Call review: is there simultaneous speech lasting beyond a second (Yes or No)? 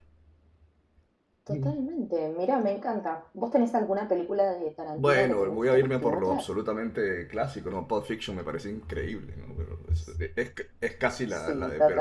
Yes